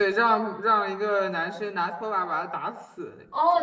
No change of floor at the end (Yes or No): No